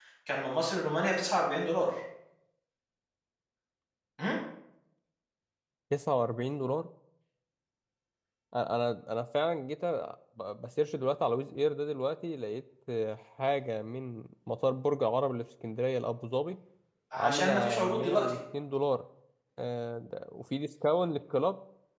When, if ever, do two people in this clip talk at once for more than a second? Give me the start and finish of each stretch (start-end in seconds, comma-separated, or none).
17.2-18.4